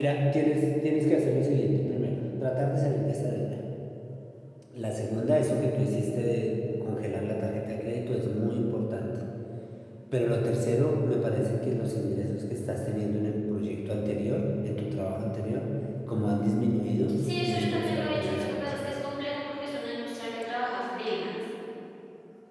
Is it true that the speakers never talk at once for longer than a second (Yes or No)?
No